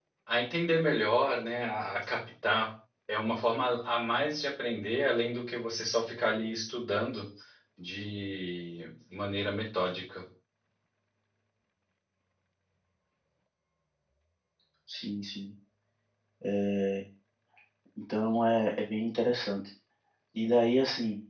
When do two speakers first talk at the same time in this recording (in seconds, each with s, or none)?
none